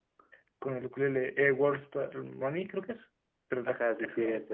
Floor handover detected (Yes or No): Yes